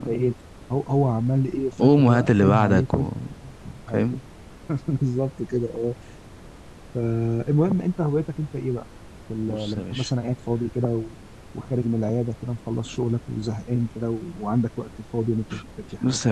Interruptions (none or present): present